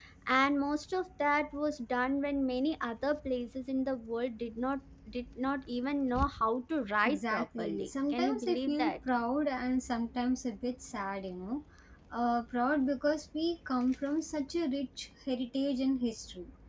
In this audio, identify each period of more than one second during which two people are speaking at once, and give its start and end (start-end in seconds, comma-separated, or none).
7.0-9.0